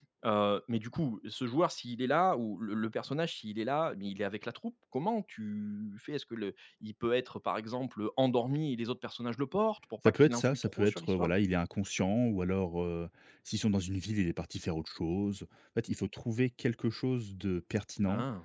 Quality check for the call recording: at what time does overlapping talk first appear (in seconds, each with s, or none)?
10.1 s